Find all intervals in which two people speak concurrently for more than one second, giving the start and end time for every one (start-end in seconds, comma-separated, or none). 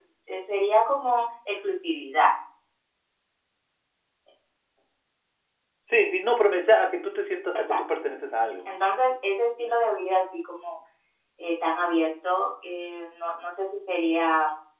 none